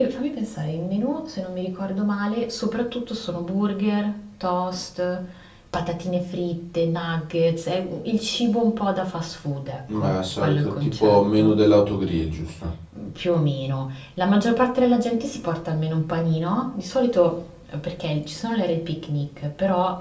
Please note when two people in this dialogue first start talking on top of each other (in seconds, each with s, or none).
9.9 s